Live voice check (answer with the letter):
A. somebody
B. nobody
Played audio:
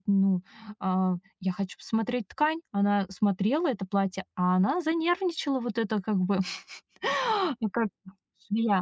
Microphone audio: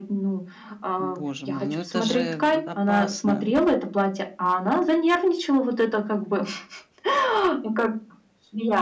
A